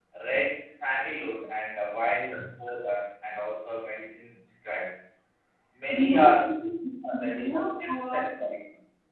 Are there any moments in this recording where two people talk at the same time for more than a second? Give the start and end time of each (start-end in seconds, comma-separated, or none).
7.1-8.4